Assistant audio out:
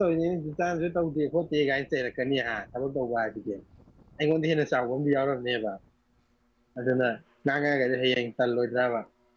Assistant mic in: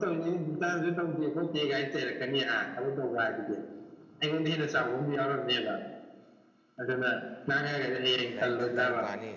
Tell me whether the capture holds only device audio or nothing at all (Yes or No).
No